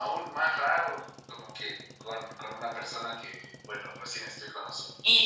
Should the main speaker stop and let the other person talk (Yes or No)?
Yes